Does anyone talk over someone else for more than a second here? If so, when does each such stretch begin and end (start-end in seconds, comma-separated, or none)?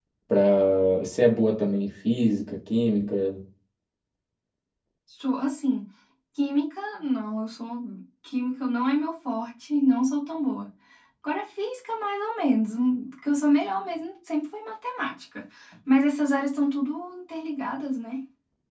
none